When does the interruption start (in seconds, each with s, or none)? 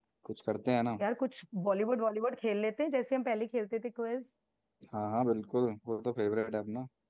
none